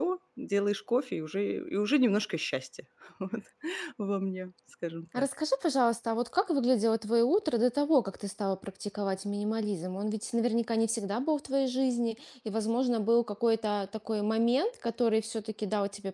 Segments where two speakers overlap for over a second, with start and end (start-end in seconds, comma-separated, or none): none